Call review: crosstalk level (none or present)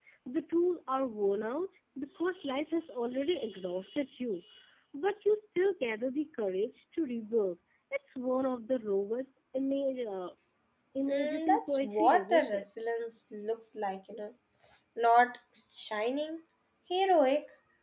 present